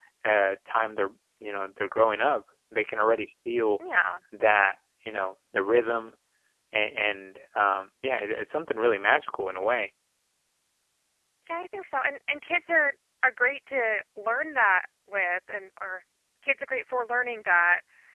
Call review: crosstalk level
none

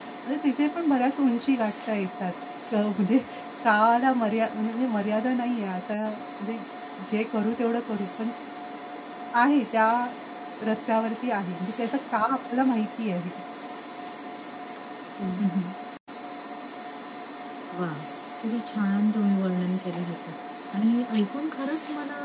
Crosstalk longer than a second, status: none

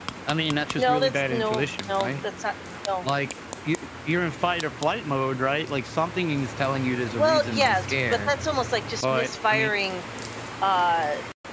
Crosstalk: present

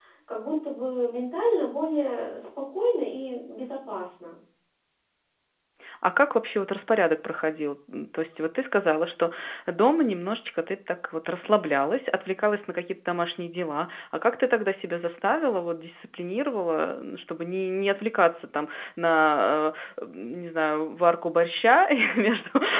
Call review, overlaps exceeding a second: none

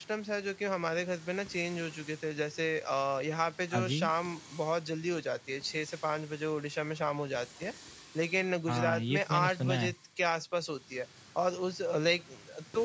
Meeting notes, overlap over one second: present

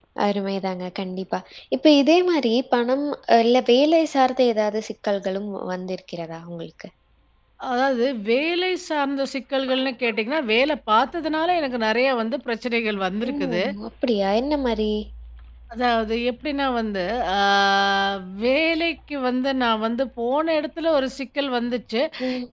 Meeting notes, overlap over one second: none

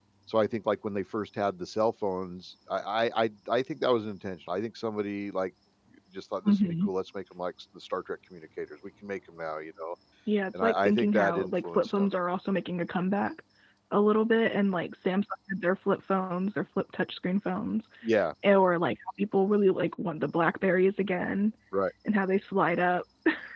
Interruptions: present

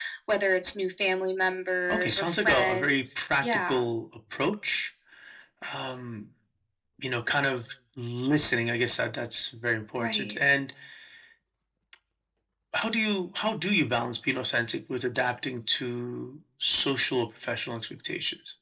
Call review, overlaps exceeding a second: present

